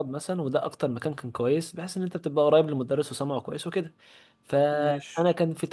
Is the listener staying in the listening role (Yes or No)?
Yes